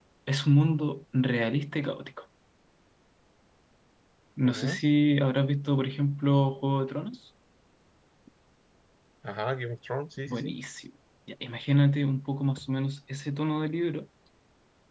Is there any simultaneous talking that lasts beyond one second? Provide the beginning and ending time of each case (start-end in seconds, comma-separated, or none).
none